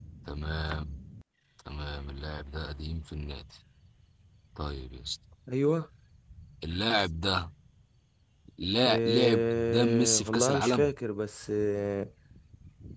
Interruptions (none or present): present